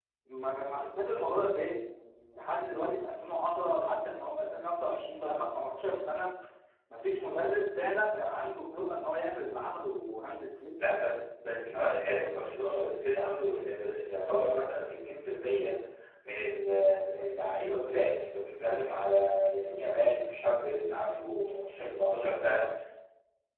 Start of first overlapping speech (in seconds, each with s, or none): none